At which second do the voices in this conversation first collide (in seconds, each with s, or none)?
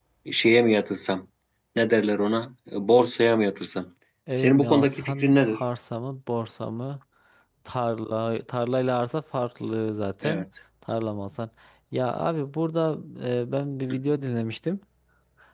4.3 s